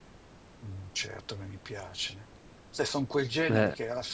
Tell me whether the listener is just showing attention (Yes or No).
Yes